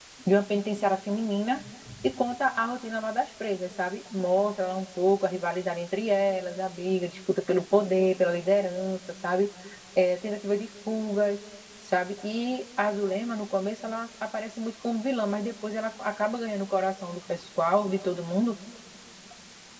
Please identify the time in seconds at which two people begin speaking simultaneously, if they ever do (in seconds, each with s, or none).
none